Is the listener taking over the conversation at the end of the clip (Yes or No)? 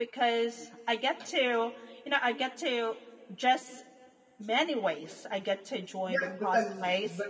Yes